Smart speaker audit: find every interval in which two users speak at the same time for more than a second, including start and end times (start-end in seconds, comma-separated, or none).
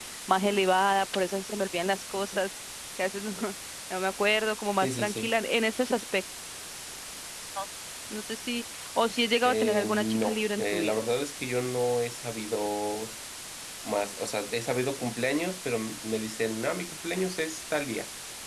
9.4-11.0